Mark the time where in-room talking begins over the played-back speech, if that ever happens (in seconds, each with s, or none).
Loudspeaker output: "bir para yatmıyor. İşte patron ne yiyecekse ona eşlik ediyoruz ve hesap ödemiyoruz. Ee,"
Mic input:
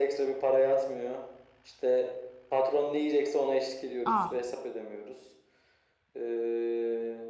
4.0 s